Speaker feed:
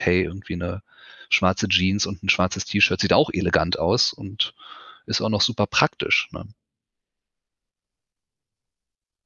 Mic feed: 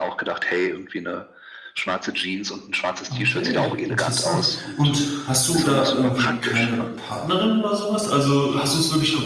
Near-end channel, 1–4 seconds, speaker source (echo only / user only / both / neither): both